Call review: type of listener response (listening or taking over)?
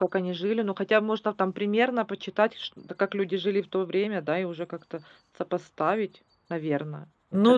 taking over